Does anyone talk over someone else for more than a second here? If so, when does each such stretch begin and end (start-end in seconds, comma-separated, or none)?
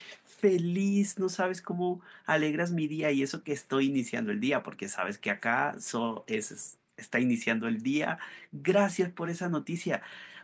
none